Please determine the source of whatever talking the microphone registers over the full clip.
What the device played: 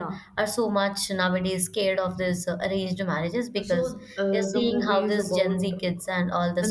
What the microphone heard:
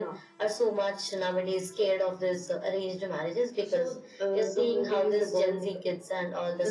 echo only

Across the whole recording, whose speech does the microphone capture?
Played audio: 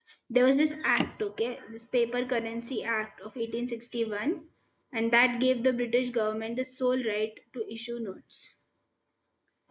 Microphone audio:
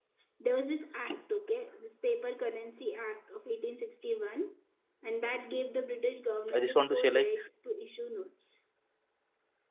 both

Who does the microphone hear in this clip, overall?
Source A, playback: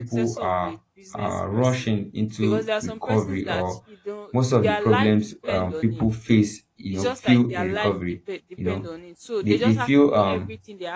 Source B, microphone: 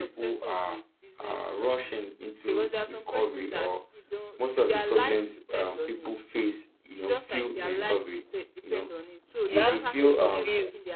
both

